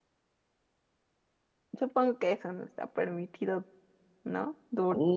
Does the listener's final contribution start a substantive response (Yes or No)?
Yes